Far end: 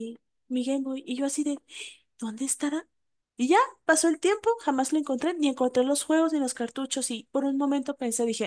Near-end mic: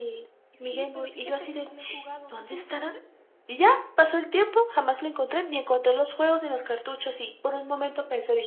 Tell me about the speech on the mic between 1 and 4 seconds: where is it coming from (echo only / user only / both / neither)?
both